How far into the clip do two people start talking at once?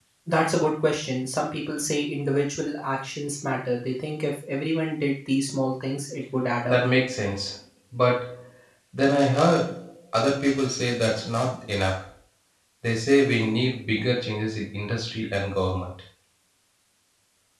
none

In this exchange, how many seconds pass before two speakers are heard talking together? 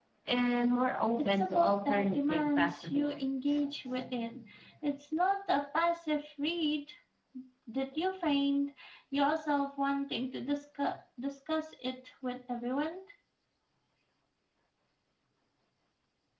1.2 s

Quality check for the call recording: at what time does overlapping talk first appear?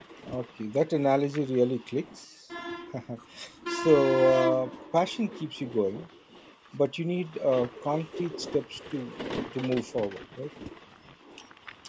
none

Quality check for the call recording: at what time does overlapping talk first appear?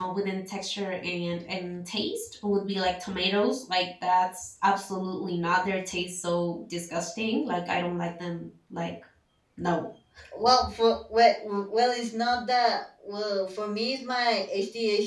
none

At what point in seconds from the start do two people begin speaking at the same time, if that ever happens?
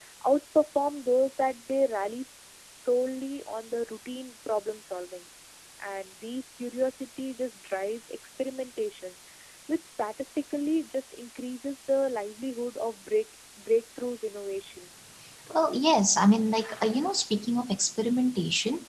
none

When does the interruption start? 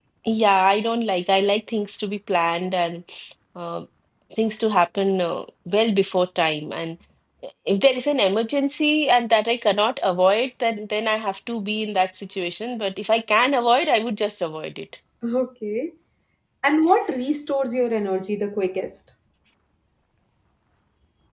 none

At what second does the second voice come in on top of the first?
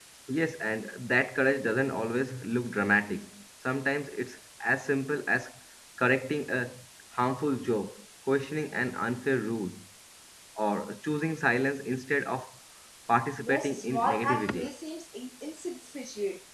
13.4 s

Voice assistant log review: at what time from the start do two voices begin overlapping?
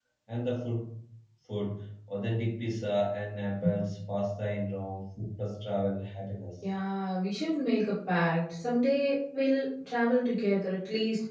none

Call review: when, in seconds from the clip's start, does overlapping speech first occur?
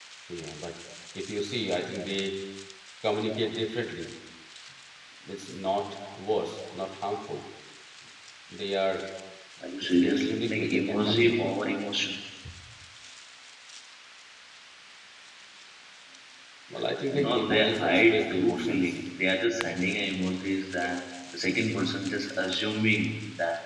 9.8 s

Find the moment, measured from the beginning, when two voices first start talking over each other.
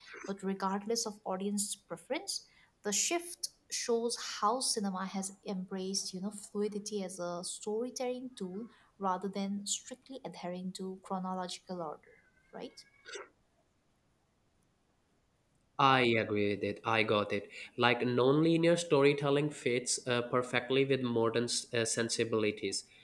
none

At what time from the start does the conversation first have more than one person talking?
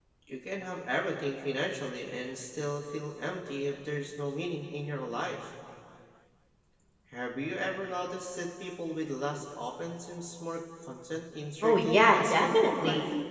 11.6 s

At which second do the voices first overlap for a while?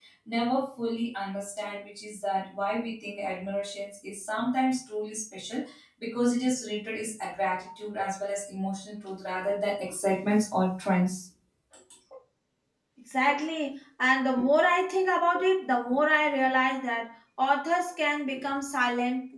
none

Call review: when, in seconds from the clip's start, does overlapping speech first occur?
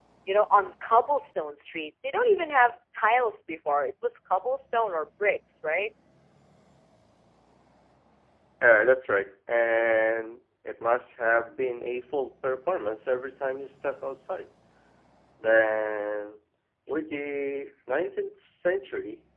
none

